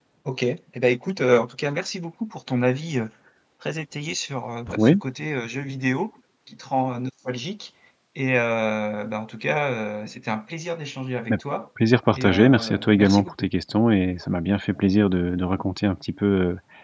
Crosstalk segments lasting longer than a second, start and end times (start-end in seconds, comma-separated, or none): 12.1-13.5